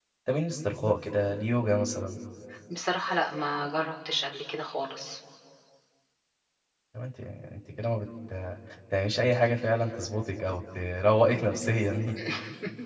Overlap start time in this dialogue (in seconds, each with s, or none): none